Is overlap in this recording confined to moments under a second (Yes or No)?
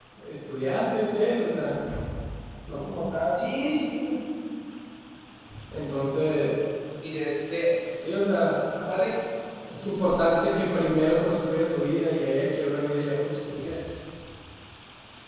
Yes